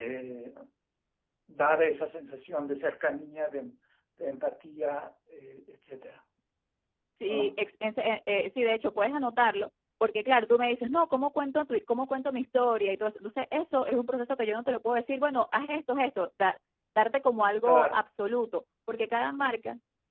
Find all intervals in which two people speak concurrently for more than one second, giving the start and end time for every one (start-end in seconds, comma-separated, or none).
none